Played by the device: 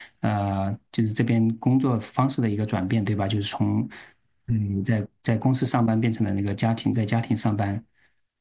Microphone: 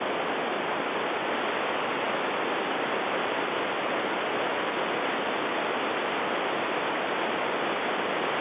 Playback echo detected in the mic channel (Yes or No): No